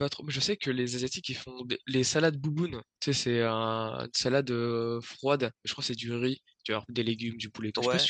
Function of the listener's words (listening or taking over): taking over